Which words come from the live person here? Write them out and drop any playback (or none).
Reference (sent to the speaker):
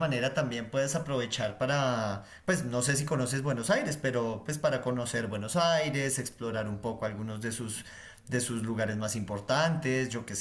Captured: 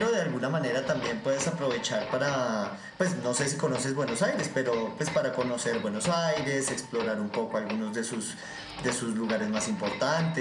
none